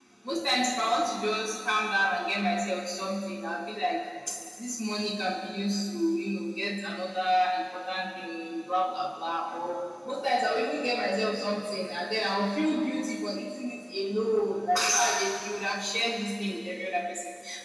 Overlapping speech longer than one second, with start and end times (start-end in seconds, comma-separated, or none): none